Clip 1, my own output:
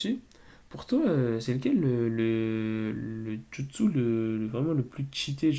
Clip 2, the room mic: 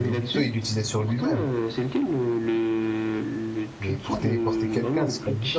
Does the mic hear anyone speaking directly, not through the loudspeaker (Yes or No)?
Yes